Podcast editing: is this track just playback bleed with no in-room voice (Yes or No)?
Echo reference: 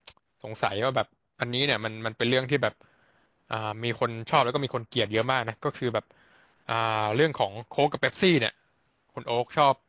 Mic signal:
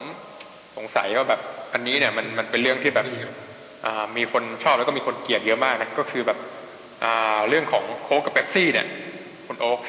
No